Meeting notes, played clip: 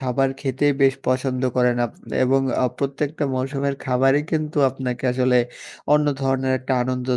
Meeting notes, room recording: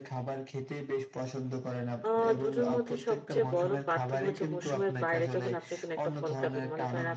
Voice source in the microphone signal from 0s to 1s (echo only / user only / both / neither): echo only